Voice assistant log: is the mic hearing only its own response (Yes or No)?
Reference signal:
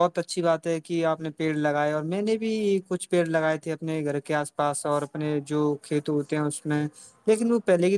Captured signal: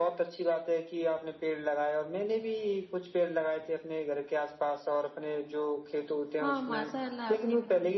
No